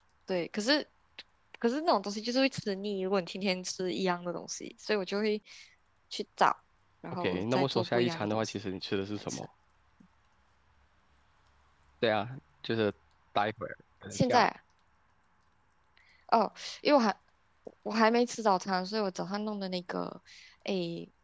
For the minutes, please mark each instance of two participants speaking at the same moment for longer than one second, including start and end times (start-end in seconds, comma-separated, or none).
7.1-8.5